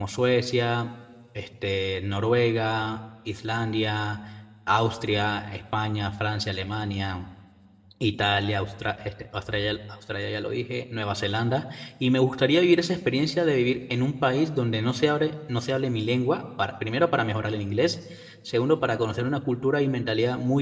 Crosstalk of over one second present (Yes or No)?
No